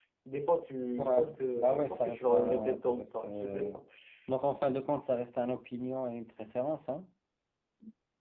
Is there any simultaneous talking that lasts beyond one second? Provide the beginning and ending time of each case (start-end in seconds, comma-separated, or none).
1.6-3.8